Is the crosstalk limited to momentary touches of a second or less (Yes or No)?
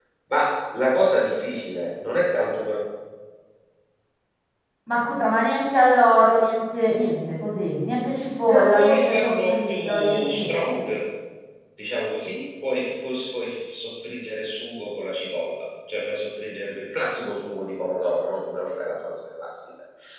No